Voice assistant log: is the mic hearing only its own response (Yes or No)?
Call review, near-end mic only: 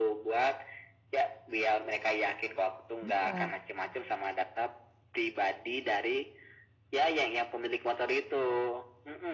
No